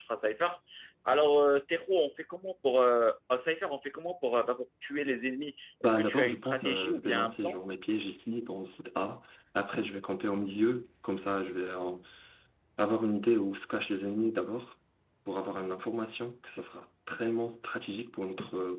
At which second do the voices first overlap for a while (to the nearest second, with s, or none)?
6 s